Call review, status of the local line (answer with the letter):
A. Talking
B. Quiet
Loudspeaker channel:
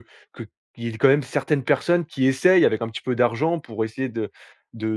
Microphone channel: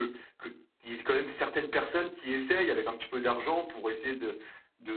B